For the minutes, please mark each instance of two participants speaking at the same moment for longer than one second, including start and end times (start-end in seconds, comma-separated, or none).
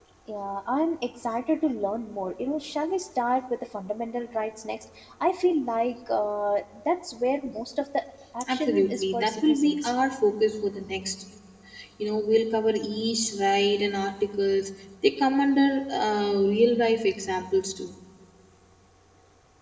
8.5-9.9